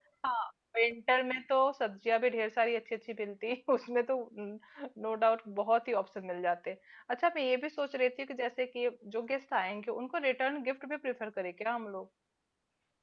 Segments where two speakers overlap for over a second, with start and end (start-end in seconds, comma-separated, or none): none